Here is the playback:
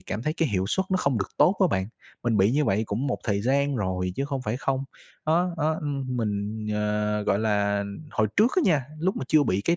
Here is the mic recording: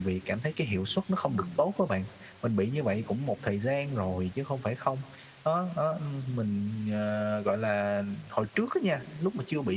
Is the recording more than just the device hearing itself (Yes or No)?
Yes